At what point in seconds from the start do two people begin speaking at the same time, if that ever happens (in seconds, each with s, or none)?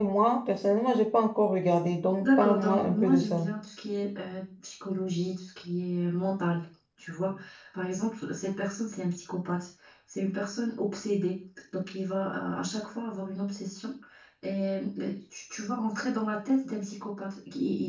2.2 s